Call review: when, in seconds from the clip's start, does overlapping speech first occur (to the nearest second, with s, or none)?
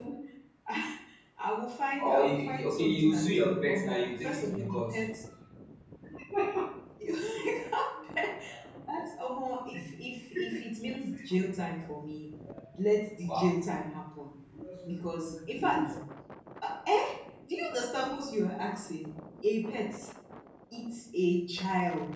2 s